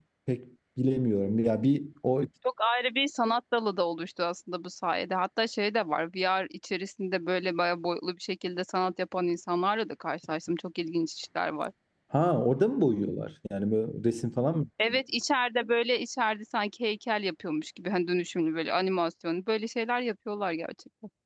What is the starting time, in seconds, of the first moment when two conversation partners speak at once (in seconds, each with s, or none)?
none